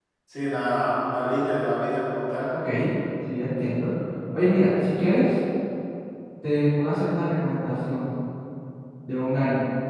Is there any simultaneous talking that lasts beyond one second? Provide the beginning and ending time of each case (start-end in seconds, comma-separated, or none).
none